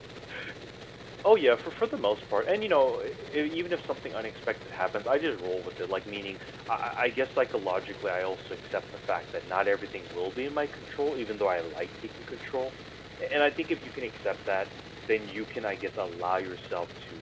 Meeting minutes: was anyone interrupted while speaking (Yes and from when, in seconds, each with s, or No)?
No